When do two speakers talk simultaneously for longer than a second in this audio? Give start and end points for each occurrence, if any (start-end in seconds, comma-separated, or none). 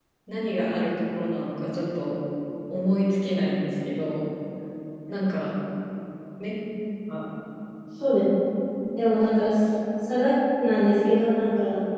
none